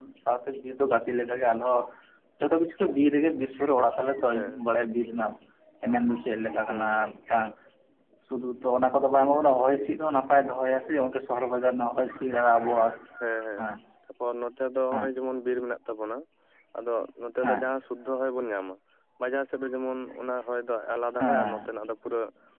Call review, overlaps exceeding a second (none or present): none